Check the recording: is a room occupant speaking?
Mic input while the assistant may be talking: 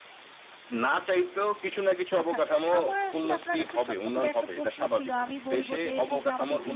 Yes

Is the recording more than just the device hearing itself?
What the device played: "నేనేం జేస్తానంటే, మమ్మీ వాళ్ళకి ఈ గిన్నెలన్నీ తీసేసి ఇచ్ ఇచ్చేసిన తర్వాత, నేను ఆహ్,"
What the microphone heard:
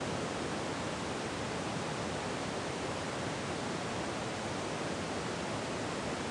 No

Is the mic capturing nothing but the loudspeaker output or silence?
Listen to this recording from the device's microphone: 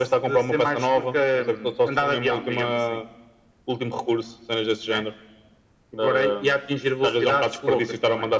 Yes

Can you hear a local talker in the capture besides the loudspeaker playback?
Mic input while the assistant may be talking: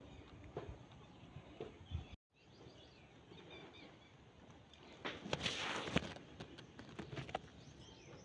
No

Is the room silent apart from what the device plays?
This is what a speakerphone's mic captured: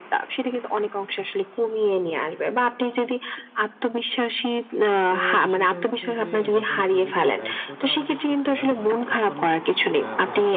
No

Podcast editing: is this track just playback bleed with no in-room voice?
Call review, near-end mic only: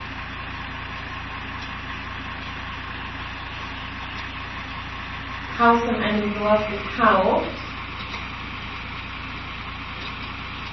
No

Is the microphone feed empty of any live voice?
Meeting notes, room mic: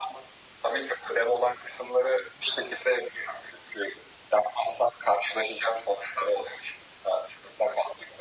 Yes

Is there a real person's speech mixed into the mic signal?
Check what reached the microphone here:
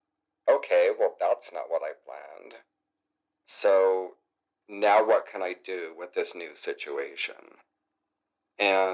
No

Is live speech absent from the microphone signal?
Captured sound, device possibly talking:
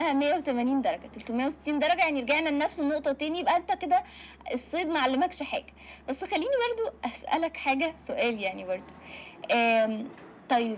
Yes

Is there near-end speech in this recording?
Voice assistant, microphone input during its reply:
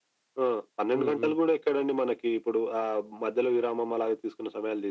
Yes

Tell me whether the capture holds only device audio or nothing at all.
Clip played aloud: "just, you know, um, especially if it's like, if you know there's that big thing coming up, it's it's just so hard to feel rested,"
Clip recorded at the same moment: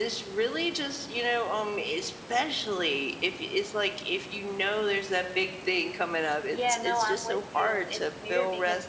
No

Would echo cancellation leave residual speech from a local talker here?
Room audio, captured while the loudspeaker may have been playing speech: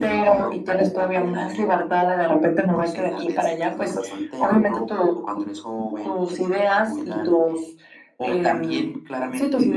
No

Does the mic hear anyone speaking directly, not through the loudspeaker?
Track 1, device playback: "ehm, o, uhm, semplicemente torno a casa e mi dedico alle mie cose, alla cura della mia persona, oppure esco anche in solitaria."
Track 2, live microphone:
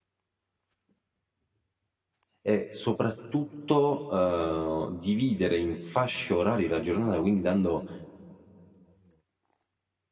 Yes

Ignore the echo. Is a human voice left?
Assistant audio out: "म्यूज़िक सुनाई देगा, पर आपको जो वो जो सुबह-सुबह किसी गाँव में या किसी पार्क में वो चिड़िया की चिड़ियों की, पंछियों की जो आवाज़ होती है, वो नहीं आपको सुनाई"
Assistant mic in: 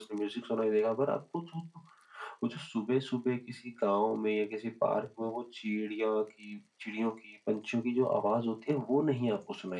No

